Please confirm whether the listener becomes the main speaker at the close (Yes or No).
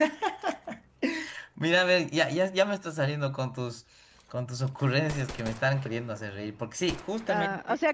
Yes